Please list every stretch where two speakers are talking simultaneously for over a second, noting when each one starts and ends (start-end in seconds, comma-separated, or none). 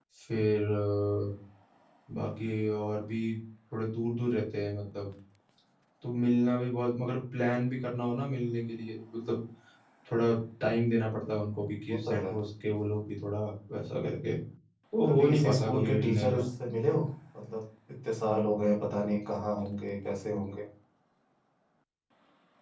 15.1-16.4